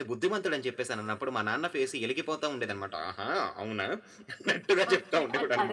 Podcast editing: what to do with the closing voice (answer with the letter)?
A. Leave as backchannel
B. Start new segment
B